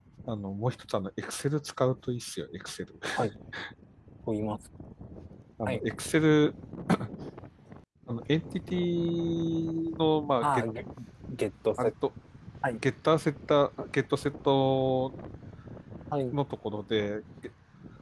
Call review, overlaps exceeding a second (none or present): none